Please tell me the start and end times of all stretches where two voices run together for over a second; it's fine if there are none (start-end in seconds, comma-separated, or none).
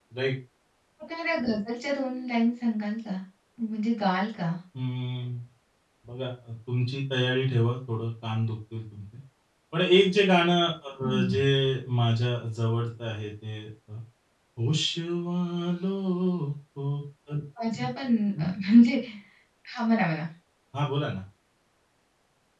none